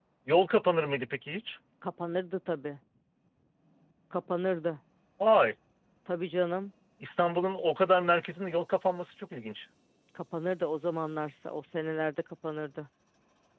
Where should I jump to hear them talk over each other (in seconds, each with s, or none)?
none